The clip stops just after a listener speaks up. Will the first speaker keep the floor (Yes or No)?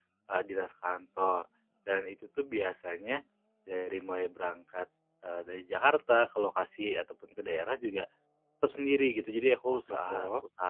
Yes